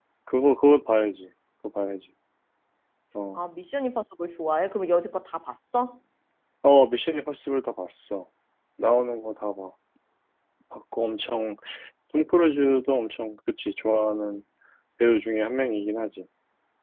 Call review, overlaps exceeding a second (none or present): none